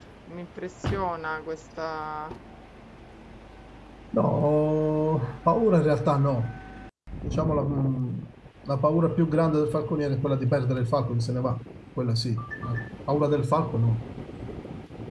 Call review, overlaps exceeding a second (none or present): none